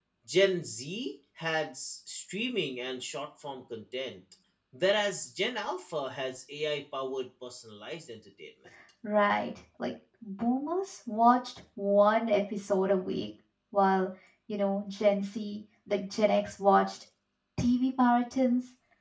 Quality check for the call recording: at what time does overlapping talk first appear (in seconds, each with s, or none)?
none